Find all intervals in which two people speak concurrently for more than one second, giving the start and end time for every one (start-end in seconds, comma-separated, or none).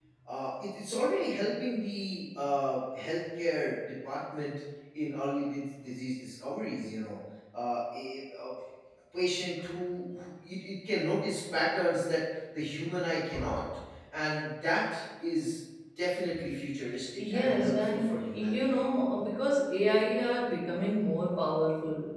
17.2-18.8